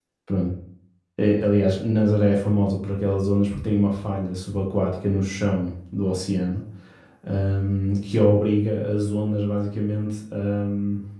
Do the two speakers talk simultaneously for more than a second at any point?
No

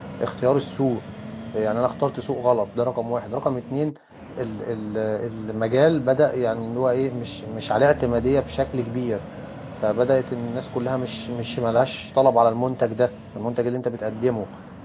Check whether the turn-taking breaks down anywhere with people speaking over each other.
No

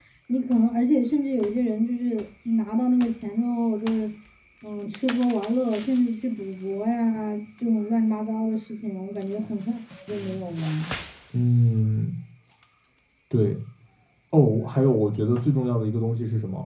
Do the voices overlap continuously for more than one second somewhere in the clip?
No

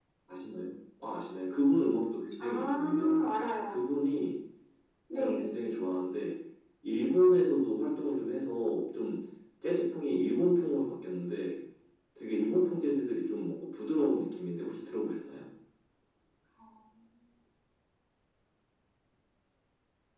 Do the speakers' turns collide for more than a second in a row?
Yes, from 2.4 s

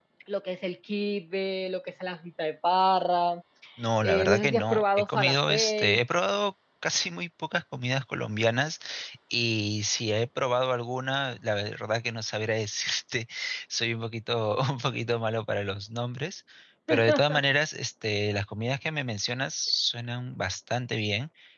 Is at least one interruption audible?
Yes, from 4.0 s

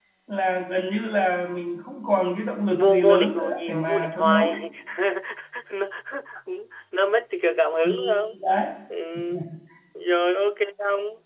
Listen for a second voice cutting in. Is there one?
Yes, from 2.7 s

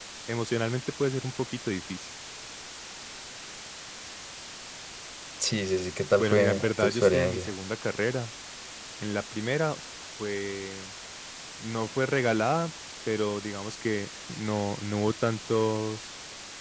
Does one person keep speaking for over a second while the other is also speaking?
Yes, from 6.2 s

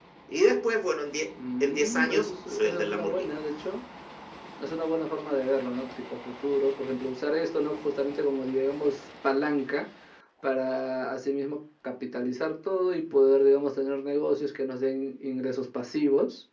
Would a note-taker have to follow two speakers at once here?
Yes, from 1.6 s

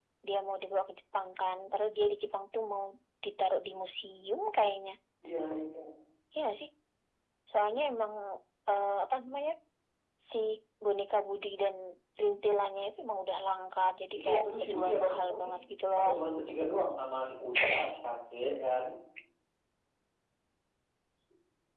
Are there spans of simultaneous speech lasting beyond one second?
Yes, from 14.2 s

